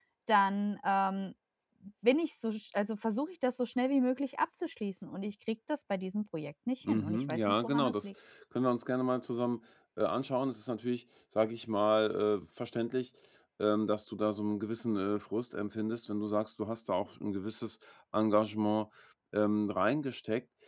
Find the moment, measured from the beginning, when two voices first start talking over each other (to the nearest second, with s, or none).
7 s